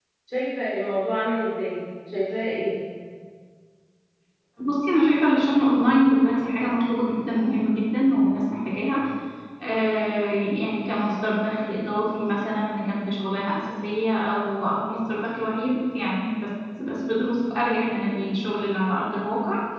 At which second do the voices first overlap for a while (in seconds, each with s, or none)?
none